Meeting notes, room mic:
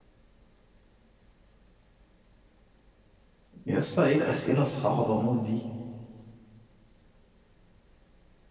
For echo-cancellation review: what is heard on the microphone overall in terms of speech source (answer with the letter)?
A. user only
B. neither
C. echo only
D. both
A